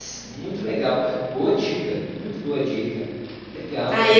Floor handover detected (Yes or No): Yes